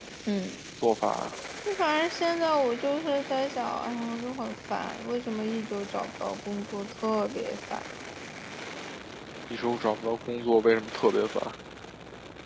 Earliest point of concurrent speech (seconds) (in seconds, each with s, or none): none